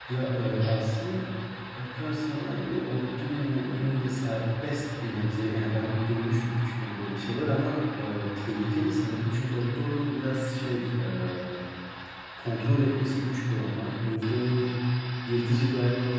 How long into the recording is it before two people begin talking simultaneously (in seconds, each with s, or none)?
none